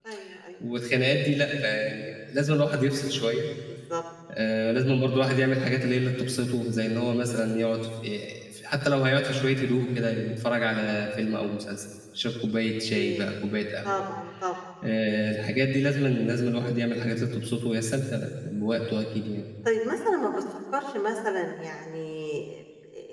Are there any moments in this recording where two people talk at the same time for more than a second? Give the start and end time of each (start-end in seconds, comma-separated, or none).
none